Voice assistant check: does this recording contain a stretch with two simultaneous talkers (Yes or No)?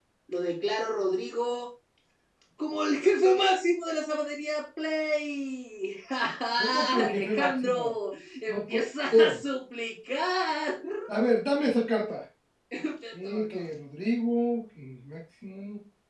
Yes